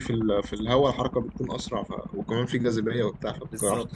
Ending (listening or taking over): taking over